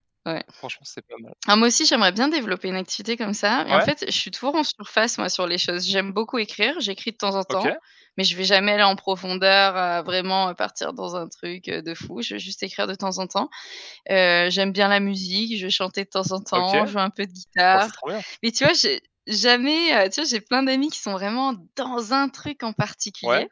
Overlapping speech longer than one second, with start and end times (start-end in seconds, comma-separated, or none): none